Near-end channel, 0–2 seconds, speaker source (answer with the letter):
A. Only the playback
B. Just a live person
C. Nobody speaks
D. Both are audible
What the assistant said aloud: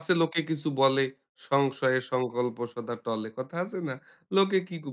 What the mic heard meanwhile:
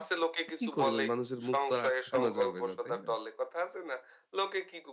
D